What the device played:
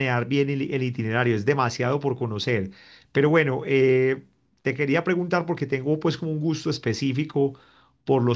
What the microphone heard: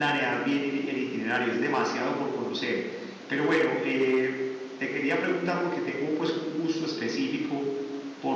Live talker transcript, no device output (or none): none